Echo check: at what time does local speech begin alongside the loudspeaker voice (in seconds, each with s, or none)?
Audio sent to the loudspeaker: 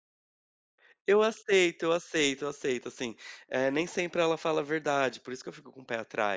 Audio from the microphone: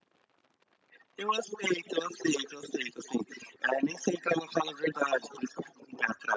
none